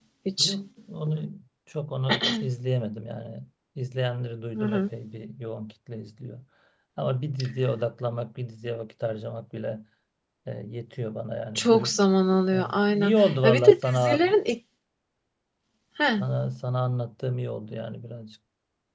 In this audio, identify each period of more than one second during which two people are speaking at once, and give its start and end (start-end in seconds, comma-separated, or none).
12.5-14.2